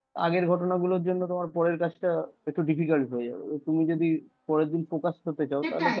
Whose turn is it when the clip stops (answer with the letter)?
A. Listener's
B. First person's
A